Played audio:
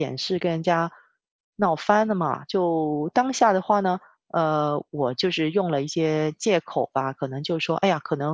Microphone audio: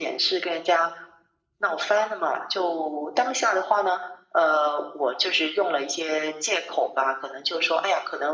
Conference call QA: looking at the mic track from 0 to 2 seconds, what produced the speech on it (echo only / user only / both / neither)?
echo only